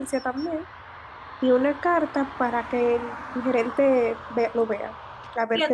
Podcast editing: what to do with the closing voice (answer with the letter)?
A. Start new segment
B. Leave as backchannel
A